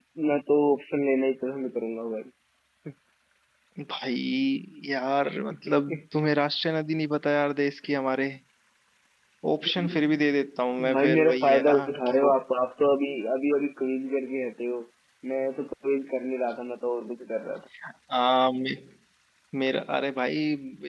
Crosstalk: present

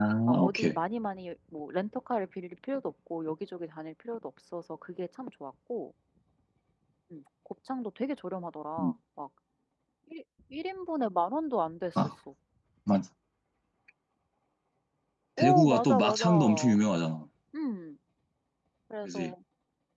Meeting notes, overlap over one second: present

